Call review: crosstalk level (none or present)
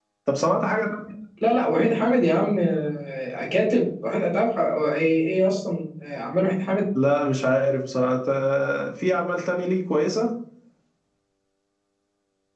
none